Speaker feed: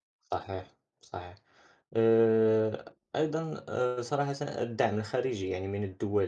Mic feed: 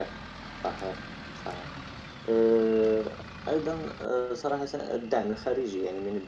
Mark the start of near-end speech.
none

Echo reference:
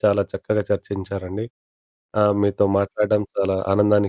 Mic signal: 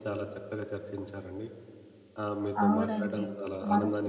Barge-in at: 2.6 s

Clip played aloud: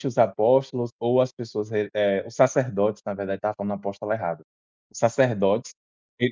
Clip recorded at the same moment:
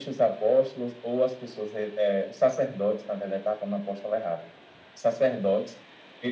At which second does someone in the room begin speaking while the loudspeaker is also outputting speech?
none

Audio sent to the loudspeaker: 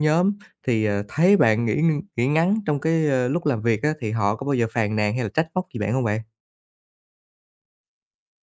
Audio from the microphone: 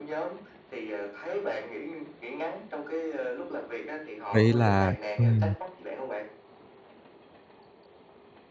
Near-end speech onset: 4.3 s

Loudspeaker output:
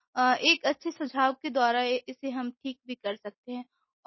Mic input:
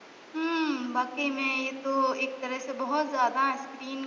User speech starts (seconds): 0.3 s

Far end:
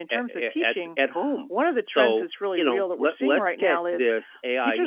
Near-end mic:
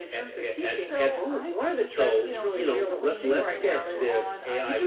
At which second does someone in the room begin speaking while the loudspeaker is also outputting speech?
0.8 s

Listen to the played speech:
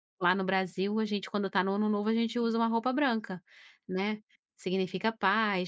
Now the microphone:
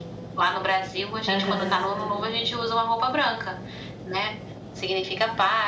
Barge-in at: 1.3 s

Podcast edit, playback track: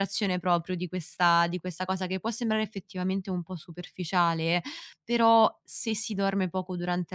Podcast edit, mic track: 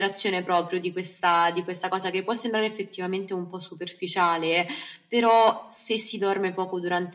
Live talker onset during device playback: none

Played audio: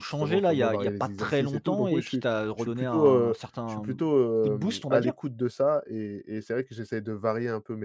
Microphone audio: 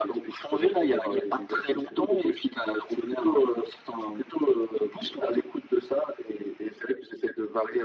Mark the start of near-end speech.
none

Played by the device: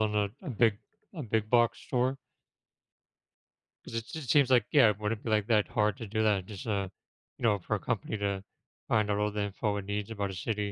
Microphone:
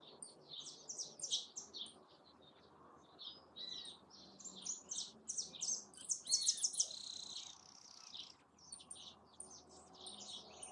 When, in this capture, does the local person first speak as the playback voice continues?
none

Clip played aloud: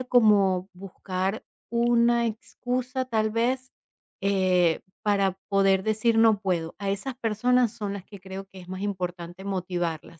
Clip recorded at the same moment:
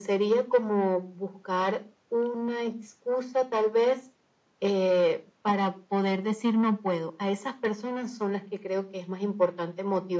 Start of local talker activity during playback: none

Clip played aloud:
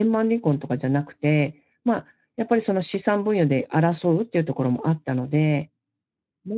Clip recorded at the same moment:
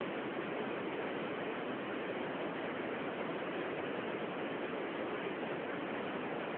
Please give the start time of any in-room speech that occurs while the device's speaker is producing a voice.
none

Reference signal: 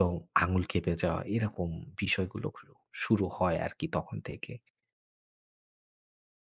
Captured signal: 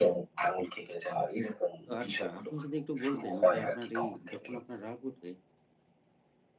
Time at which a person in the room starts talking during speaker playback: 1.9 s

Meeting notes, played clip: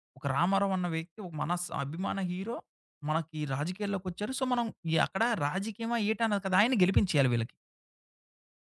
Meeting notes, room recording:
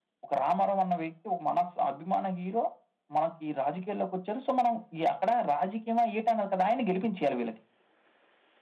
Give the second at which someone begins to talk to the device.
none

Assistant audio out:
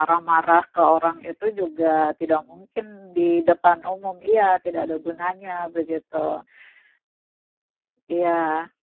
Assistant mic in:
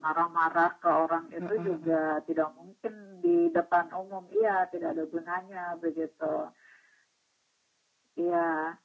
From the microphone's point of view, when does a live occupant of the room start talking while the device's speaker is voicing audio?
1.4 s

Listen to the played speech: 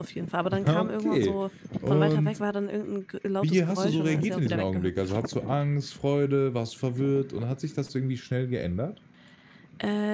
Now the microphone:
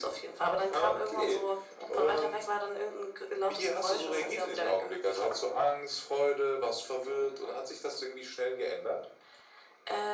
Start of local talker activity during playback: none

